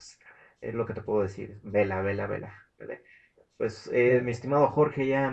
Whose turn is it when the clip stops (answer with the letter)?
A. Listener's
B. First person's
B